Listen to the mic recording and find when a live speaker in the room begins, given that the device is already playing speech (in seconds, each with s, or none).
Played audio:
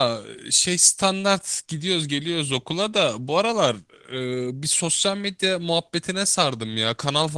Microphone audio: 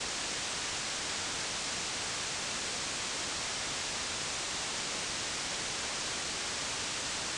none